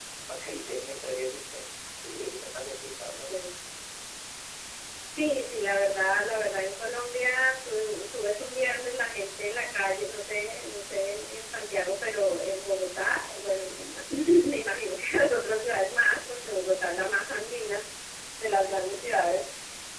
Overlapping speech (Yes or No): No